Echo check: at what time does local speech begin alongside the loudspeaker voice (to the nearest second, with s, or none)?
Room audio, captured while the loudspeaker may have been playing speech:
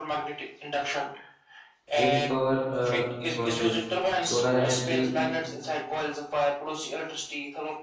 2 s